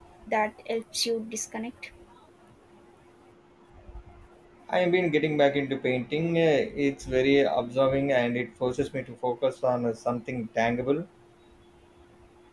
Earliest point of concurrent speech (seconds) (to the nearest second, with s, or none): none